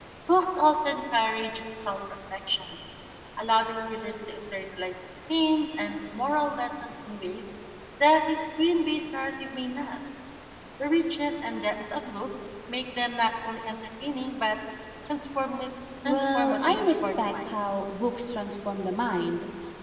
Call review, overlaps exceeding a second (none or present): present